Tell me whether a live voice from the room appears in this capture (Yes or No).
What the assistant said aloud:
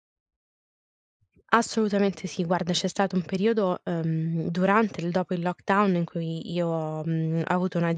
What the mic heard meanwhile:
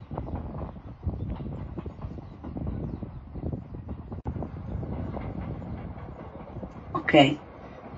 Yes